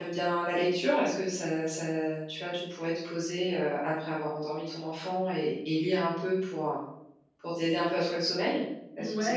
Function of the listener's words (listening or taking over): taking over